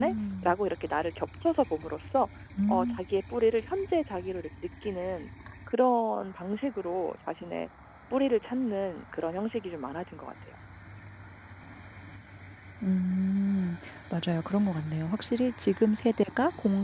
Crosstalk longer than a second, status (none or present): none